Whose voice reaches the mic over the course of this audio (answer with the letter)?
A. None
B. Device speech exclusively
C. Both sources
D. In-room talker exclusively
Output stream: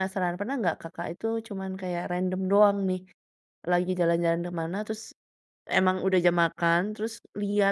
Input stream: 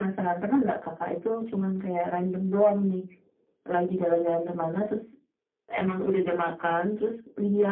B